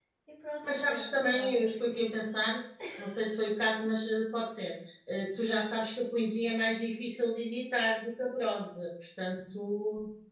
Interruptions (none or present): present